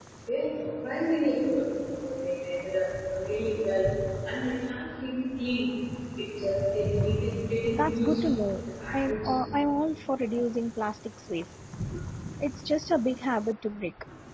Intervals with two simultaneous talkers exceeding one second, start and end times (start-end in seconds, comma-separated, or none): 7.7-9.4